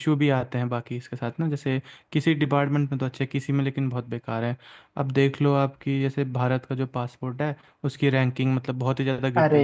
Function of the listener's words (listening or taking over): taking over